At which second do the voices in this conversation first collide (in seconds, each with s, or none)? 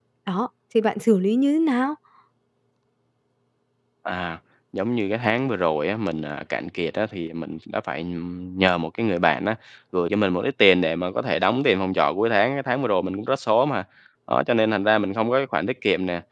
none